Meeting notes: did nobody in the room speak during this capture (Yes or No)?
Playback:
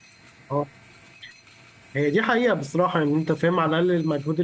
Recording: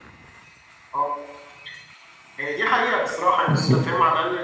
No